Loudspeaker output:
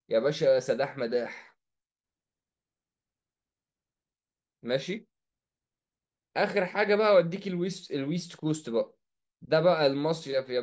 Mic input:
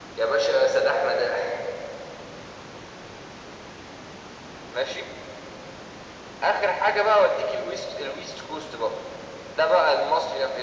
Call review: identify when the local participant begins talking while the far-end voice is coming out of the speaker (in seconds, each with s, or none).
none